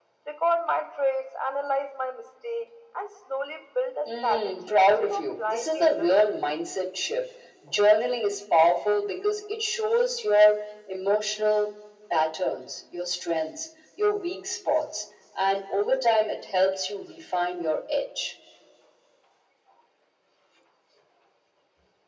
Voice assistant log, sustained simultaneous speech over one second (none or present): present